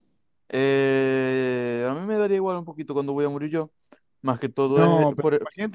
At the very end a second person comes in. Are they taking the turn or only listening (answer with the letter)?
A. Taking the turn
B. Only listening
A